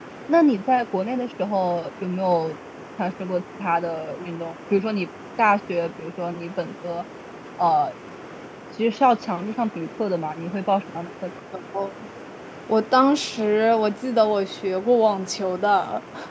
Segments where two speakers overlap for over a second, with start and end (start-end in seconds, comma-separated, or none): none